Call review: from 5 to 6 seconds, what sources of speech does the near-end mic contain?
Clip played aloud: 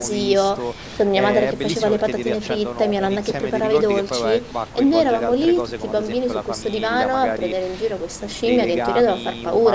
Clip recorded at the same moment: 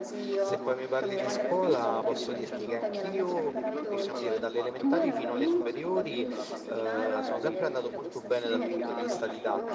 both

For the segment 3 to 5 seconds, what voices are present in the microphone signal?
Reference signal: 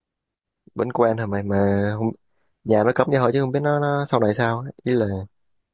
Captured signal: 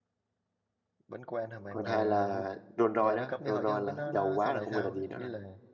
both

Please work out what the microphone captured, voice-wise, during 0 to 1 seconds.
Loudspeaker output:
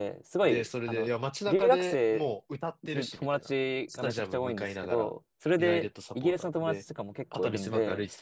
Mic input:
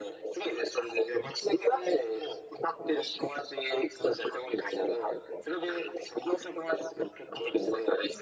echo only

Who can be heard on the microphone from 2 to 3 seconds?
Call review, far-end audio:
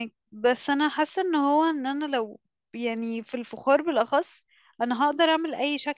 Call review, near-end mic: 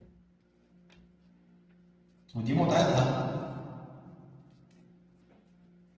user only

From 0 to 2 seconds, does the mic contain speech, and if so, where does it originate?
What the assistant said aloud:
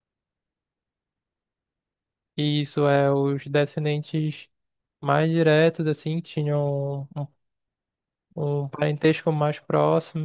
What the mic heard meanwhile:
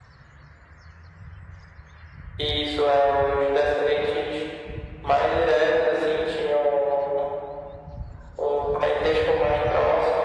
neither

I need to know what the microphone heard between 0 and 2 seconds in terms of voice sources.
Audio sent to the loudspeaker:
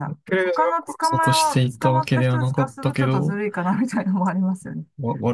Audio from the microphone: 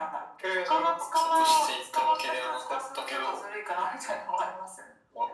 echo only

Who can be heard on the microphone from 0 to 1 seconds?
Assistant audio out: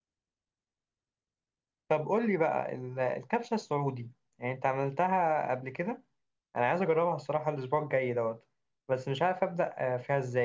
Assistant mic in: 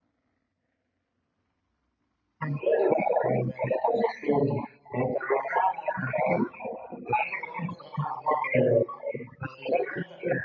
neither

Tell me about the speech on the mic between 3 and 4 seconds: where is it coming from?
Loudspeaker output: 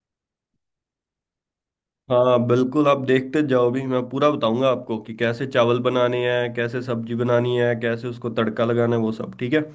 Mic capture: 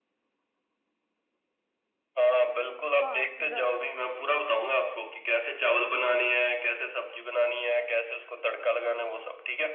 both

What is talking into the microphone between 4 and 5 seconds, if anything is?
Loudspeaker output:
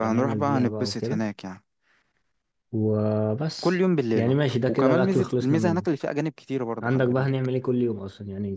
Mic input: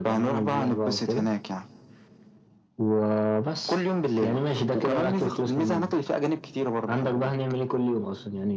echo only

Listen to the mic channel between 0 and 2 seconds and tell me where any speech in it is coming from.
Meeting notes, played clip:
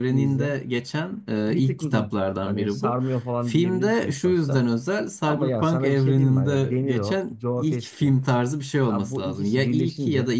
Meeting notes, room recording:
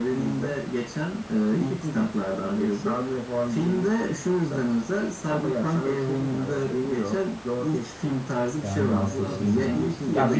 echo only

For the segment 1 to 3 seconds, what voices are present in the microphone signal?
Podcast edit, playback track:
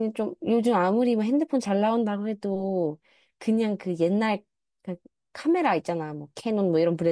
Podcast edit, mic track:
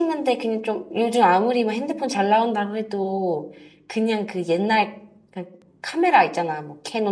echo only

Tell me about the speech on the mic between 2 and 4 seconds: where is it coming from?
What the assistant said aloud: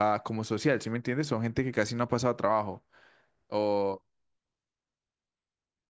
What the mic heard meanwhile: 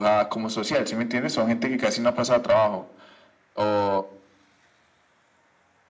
echo only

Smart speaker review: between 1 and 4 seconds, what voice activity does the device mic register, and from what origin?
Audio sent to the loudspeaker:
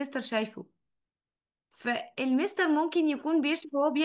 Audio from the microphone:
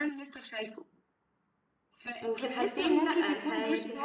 both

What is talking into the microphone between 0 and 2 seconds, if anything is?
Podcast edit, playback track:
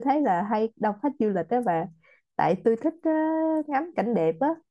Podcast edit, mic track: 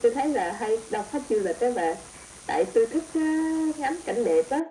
echo only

